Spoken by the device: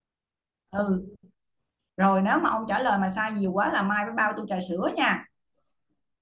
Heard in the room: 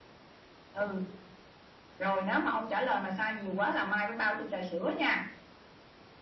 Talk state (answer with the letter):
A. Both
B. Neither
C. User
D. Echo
D